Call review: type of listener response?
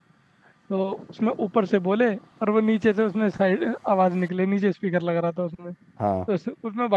listening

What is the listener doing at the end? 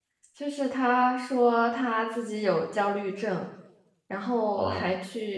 listening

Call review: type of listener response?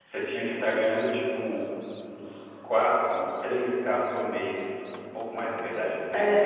taking over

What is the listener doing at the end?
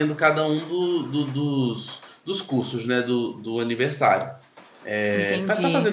taking over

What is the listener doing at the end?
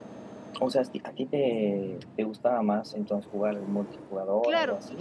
taking over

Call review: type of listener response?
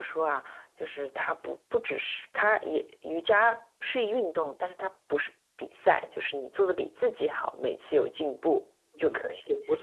taking over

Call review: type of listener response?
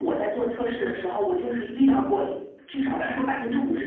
listening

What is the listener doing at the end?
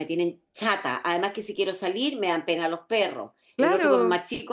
listening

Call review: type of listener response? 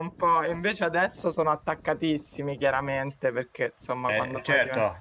taking over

